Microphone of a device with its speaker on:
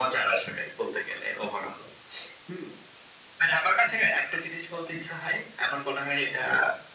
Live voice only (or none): none